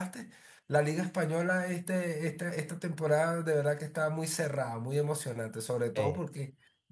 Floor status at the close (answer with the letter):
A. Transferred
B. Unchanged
B